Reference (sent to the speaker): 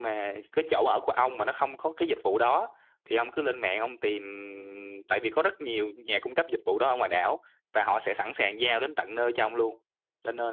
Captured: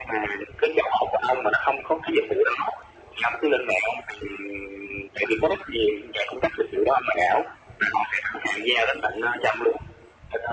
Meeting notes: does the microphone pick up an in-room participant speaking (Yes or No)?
No